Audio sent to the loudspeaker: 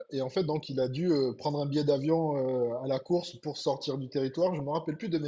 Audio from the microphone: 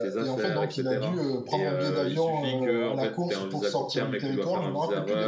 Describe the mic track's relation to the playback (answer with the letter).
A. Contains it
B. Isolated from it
A